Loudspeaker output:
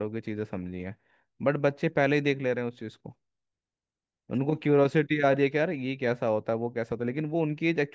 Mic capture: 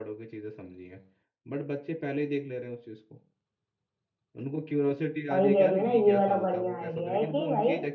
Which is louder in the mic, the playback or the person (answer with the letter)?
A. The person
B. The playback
A